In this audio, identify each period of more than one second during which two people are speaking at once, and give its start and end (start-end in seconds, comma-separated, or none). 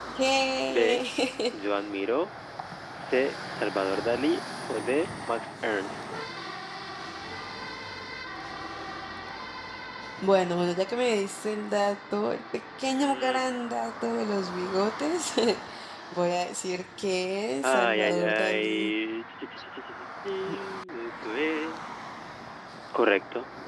17.6-18.9